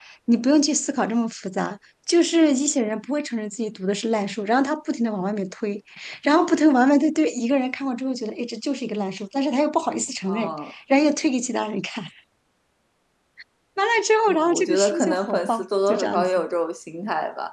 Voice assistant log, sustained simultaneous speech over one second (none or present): present